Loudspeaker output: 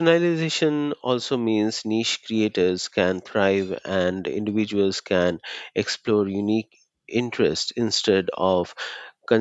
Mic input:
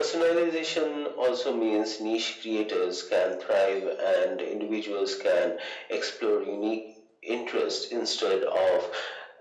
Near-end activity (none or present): none